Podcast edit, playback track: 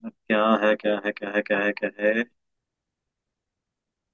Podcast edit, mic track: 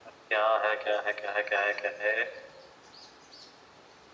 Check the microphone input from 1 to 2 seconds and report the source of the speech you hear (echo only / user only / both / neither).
echo only